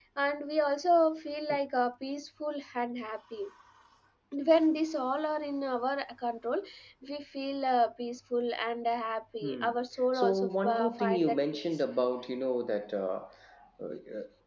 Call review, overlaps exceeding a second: present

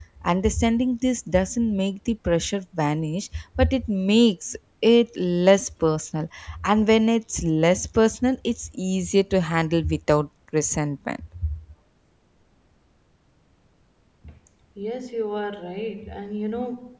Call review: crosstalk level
none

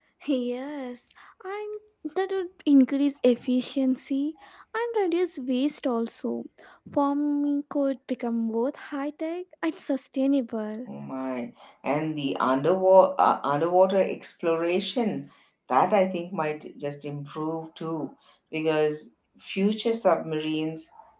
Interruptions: none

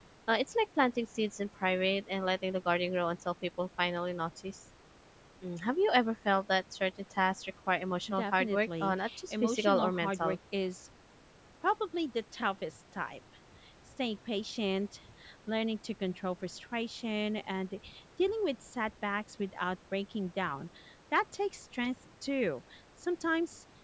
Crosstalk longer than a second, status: present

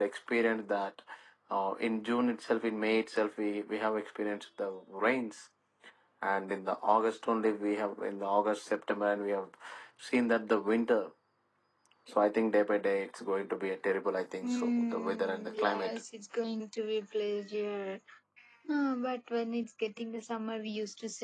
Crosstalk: present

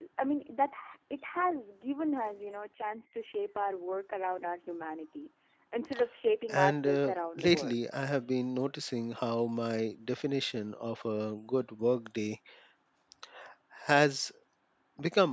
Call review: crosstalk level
present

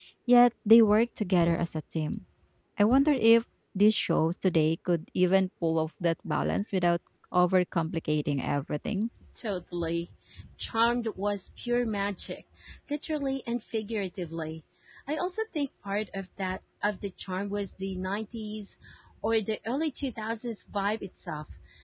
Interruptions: none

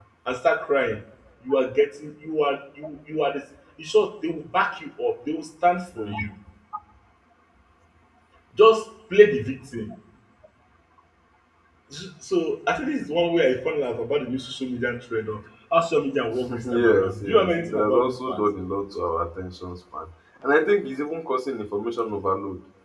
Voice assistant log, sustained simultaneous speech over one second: present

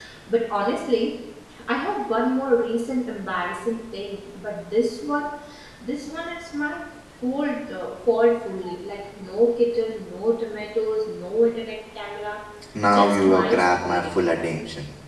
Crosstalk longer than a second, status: present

